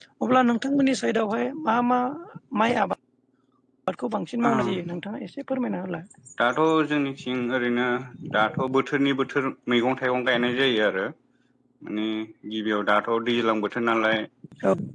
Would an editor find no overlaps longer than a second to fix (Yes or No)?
Yes